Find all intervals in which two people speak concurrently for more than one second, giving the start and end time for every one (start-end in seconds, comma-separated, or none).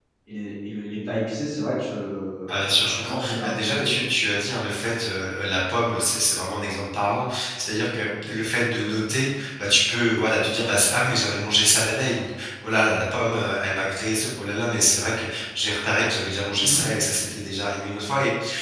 2.5-3.9